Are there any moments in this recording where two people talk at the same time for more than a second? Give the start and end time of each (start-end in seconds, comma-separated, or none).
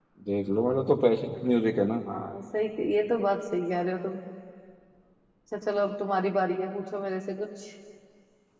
none